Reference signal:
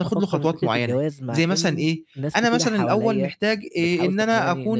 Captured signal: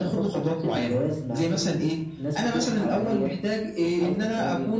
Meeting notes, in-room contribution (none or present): none